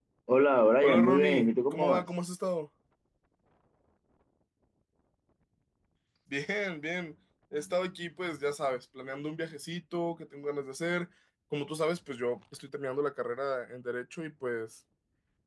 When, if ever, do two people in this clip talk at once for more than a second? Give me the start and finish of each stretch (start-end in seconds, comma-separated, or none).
0.8-2.0